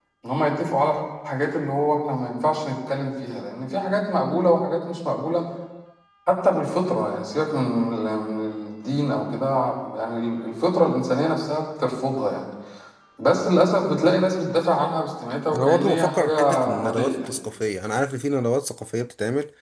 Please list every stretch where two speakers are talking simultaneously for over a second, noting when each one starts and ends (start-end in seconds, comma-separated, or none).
15.5-17.3